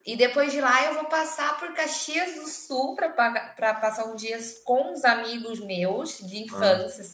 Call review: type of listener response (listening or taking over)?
listening